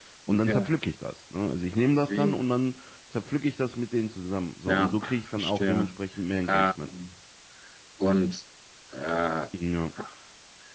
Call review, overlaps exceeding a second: present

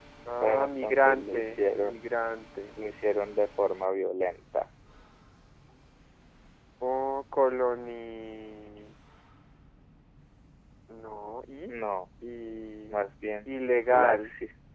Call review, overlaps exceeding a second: present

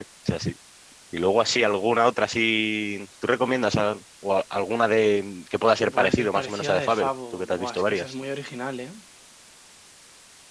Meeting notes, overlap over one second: present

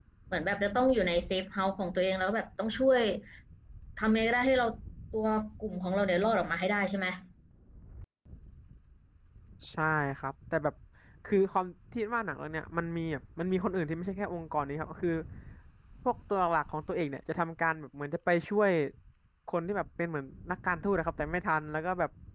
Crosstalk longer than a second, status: none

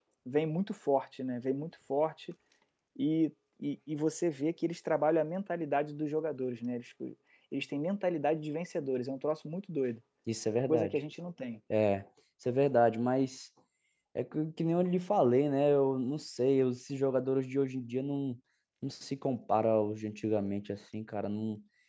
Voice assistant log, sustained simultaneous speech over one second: none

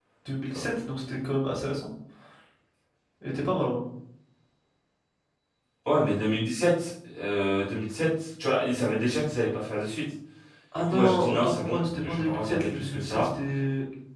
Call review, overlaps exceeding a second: present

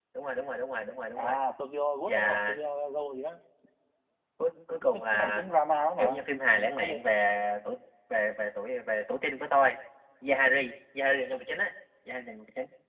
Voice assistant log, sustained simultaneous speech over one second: none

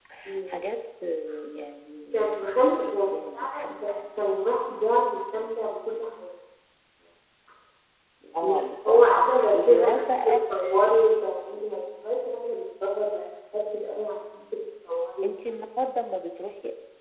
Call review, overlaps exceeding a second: present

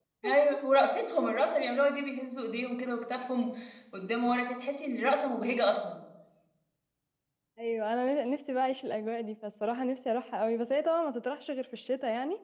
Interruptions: none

